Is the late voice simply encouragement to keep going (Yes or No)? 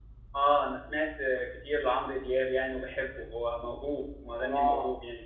No